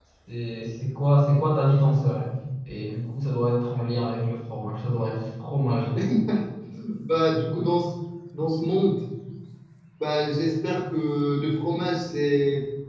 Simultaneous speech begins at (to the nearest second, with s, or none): none